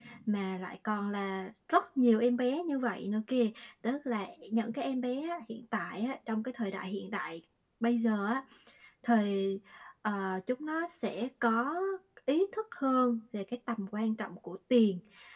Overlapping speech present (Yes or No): No